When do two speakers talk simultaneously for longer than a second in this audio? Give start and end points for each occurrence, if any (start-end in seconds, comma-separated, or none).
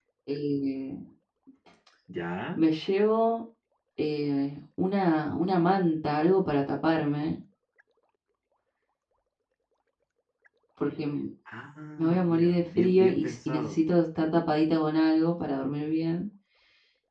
12.0-13.8